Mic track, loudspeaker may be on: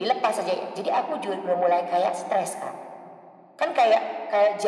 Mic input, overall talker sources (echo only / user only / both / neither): echo only